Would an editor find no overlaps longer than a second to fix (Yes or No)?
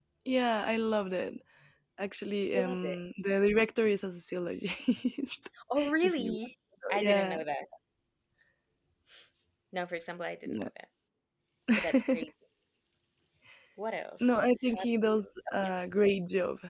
No